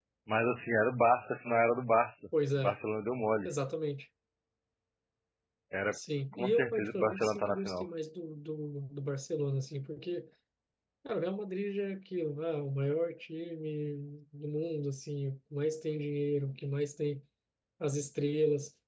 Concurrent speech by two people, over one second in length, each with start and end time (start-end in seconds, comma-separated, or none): 6.3-7.8